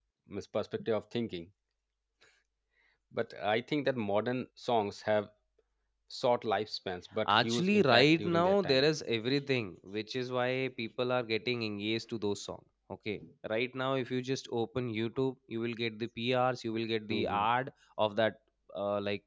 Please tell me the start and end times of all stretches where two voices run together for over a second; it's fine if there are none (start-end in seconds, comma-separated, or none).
7.3-8.8